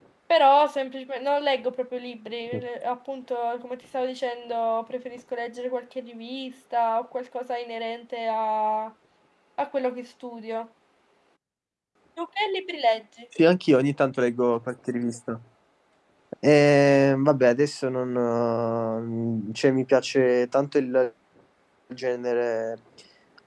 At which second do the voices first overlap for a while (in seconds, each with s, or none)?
none